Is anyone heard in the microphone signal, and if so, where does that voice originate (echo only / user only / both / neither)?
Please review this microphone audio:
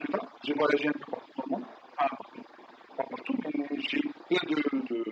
echo only